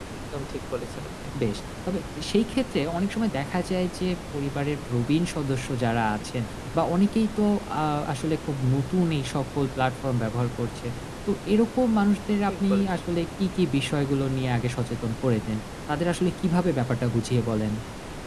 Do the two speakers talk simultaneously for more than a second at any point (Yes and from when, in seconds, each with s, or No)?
No